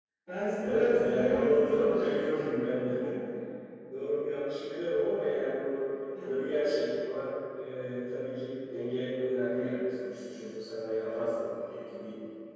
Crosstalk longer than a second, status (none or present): present